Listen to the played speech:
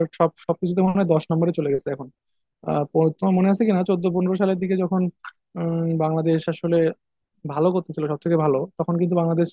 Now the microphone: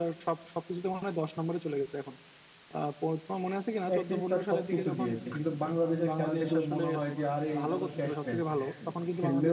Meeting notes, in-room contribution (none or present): present